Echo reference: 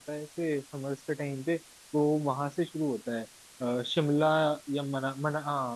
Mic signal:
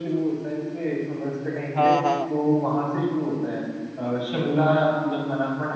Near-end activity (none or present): present